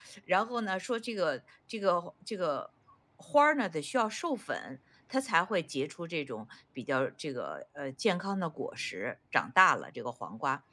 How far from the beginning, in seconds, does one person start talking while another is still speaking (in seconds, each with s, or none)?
none